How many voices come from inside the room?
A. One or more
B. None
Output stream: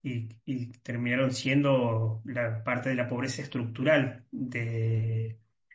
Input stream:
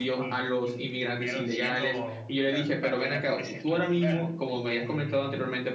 A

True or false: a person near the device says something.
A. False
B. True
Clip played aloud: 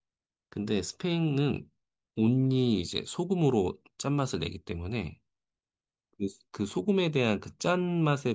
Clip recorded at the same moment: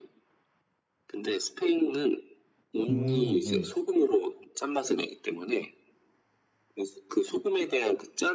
B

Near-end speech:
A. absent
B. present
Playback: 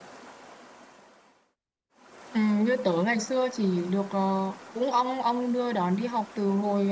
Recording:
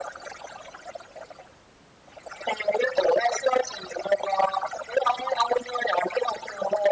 A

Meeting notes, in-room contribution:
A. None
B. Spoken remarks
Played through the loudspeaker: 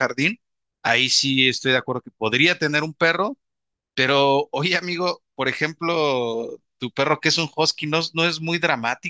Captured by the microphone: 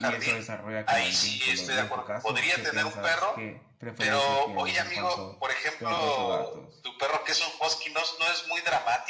B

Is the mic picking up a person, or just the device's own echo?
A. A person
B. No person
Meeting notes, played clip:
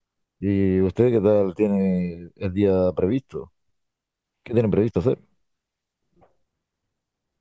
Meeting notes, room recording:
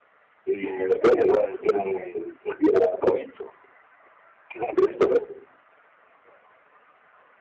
B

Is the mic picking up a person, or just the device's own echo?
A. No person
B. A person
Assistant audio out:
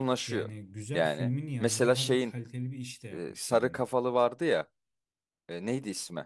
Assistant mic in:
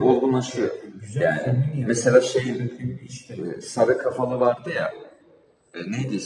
A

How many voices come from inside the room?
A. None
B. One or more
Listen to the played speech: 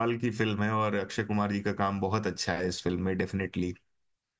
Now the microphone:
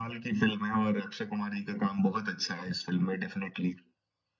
A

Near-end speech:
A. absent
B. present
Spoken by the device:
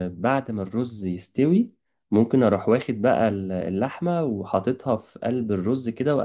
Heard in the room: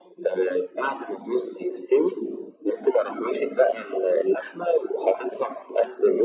A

